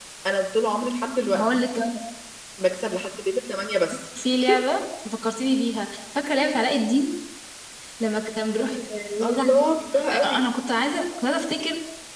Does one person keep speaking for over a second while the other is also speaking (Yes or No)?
No